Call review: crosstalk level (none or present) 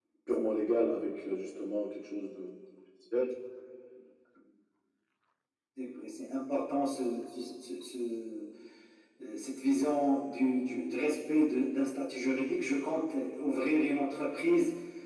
none